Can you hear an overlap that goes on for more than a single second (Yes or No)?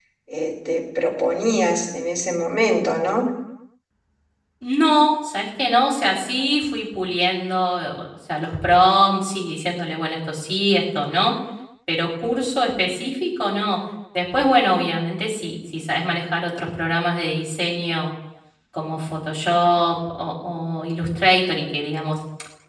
No